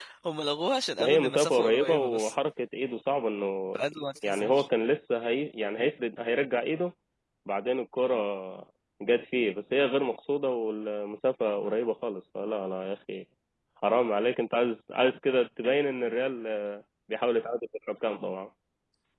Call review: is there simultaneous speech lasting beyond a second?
Yes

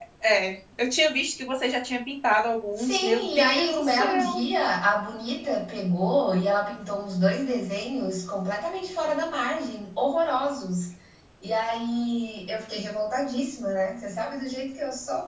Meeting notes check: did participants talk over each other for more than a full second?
Yes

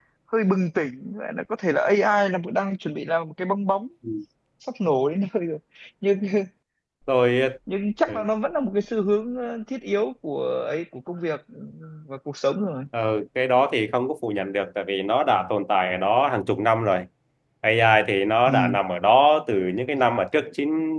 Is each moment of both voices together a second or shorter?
Yes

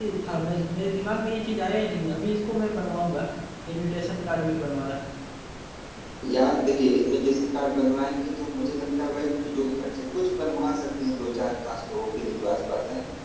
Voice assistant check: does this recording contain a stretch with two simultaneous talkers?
No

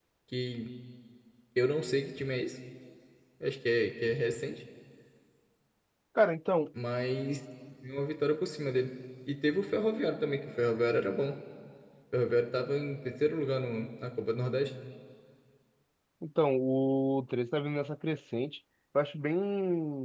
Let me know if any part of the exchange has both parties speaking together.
No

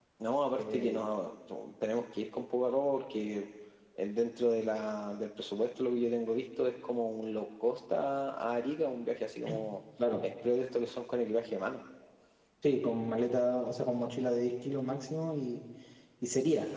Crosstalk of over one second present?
No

